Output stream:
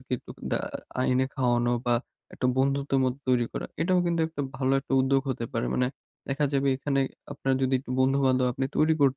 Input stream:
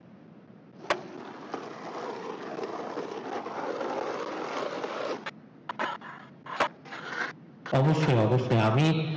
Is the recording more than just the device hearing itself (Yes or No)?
Yes